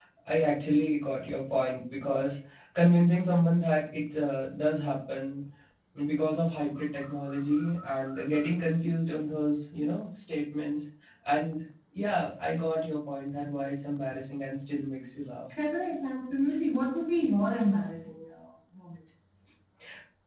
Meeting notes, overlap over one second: none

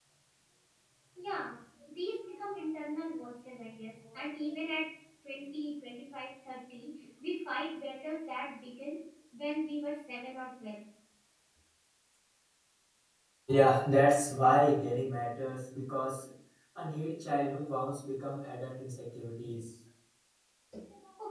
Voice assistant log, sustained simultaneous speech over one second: none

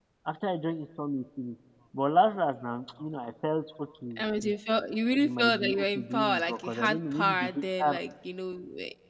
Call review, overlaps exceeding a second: present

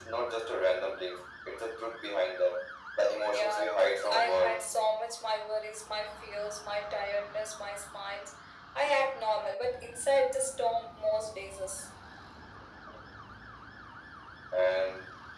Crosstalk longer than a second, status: present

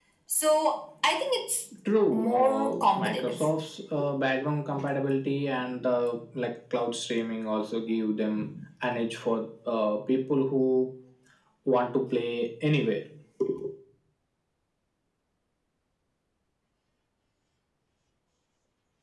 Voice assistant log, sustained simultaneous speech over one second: present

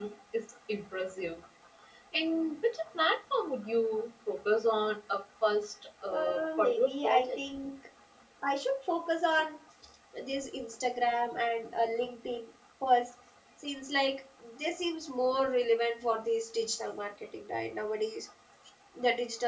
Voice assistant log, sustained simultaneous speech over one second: present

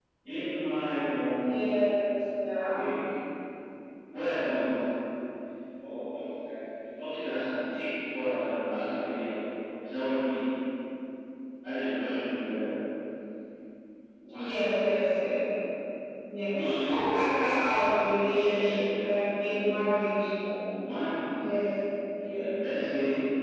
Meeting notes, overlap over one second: present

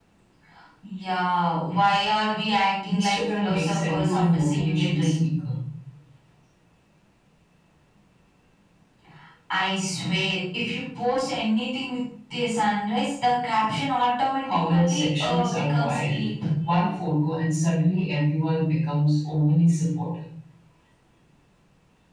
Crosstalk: present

